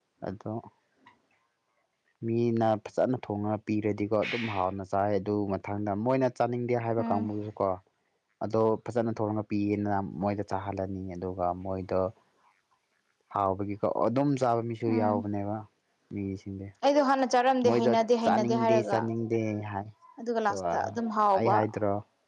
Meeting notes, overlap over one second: present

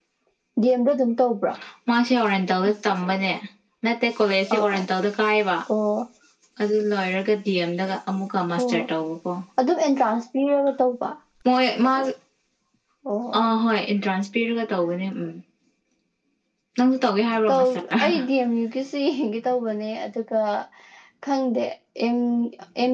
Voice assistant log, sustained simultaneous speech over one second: none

